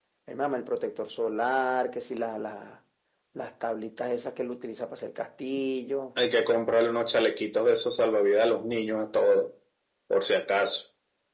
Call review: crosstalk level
none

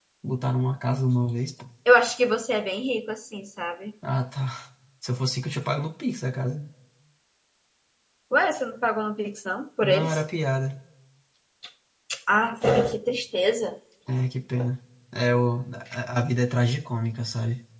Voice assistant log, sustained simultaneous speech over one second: none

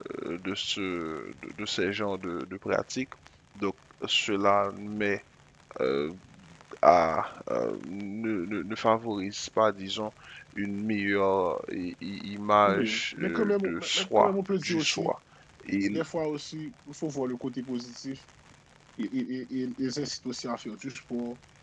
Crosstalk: present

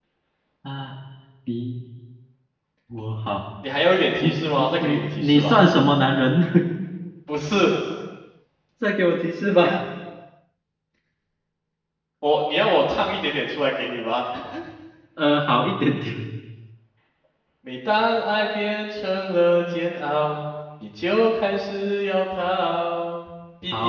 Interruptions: present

